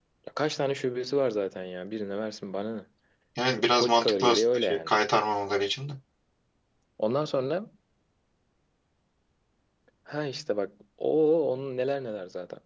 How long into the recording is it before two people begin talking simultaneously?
3.5 s

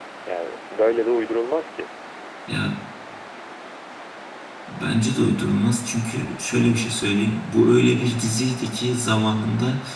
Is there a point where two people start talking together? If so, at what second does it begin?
none

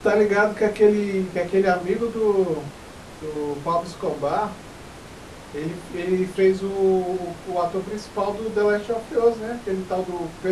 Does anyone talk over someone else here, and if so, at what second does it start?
none

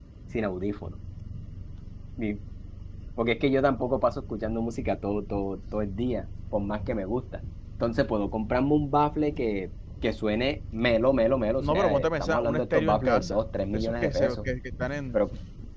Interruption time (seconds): 11.6 s

